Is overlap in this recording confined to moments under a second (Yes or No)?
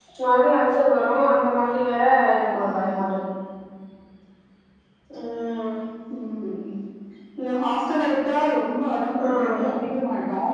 Yes